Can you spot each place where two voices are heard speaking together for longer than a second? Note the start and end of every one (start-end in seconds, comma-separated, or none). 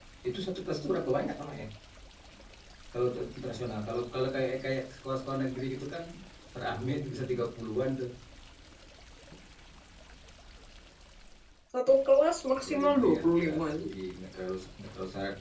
12.6-13.9